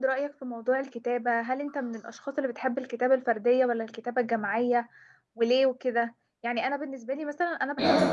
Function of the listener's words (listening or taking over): listening